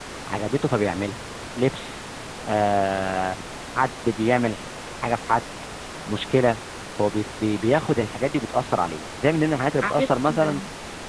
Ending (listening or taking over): listening